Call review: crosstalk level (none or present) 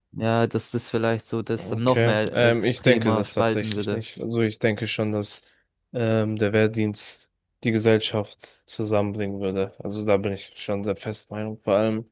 present